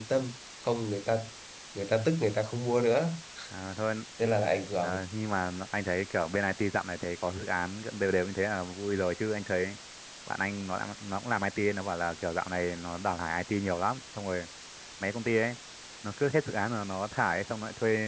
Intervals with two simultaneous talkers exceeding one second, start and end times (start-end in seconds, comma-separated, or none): none